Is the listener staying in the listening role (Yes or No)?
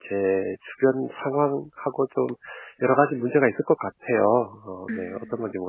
No